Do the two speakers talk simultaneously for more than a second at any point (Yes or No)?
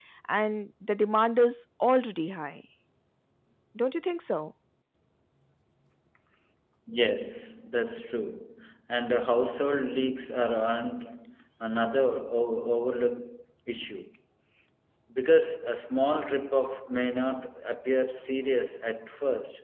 No